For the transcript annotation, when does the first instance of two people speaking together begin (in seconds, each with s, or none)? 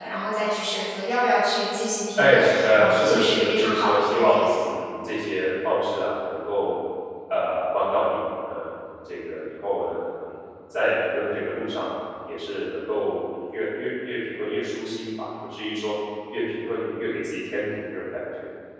2.2 s